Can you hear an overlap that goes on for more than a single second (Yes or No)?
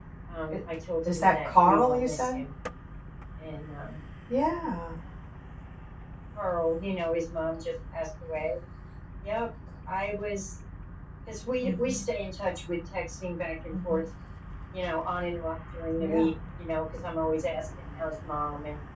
Yes